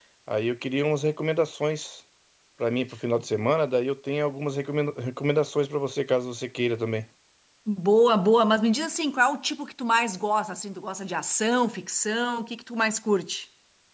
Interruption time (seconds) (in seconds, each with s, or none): none